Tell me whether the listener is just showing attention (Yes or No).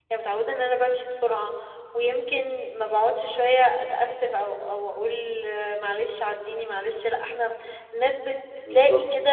Yes